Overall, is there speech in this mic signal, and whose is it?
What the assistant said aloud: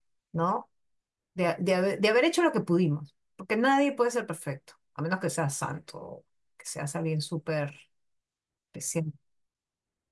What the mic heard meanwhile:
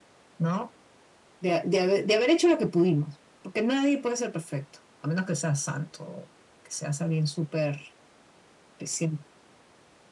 echo only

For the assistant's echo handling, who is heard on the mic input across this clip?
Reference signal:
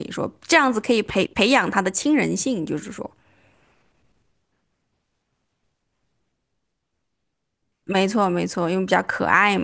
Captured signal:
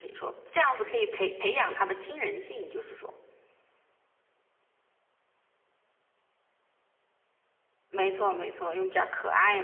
echo only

